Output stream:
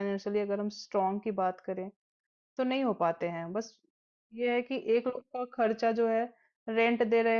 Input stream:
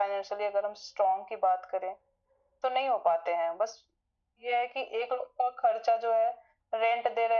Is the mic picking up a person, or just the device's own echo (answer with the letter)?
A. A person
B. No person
B